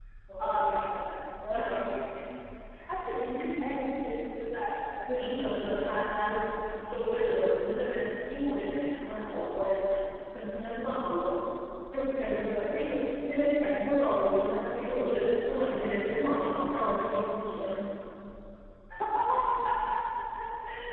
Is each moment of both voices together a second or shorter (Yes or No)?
No